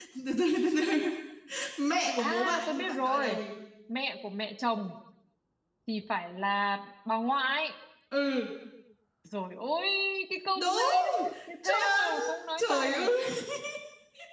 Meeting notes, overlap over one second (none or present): present